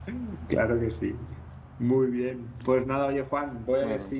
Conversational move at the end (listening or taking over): listening